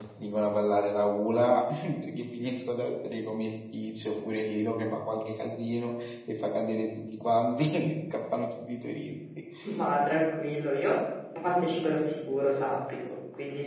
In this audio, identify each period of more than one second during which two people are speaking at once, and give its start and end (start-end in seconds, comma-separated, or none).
none